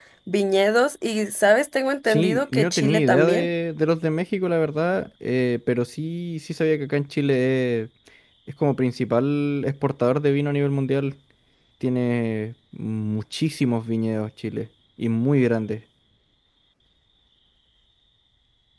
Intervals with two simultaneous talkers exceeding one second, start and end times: 2.1-3.5

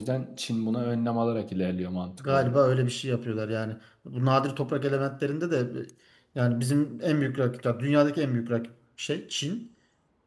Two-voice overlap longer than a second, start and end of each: none

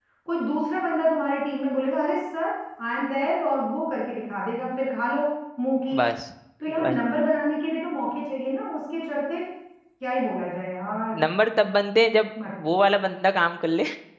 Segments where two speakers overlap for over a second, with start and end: none

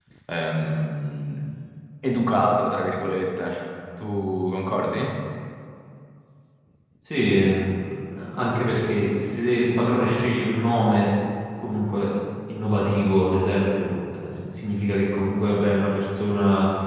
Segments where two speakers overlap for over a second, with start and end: none

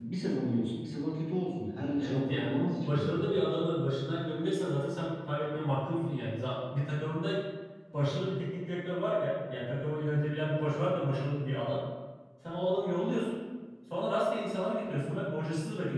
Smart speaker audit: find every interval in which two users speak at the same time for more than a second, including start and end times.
2.0-3.2

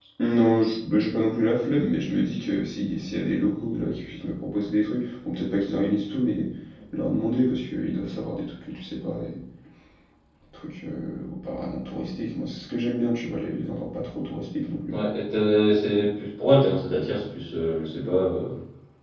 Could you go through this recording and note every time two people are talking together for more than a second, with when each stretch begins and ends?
none

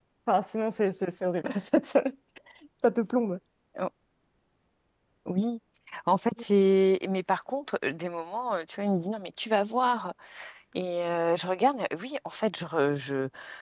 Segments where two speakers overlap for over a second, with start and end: none

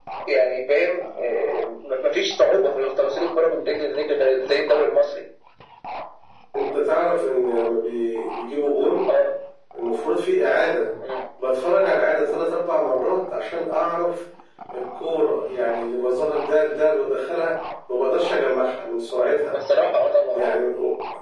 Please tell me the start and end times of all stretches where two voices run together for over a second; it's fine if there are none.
none

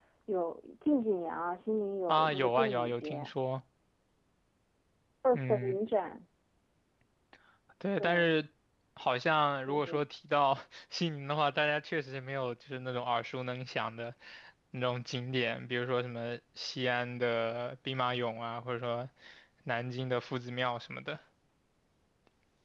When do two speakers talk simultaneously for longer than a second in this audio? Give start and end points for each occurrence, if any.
2.1-3.3

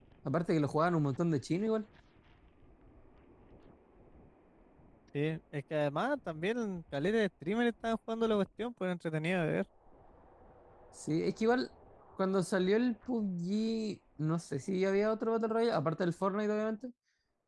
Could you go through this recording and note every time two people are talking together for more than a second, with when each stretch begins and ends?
none

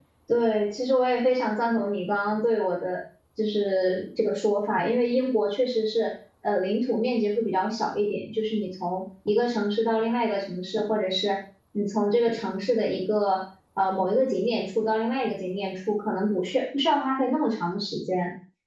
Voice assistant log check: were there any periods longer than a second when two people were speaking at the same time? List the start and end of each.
none

